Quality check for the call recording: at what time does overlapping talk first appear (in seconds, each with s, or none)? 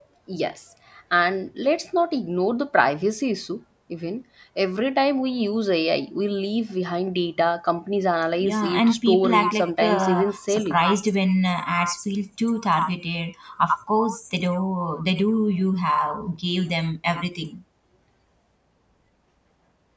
8.4 s